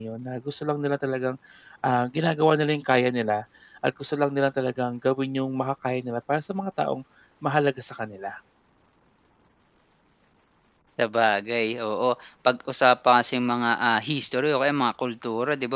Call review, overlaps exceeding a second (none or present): none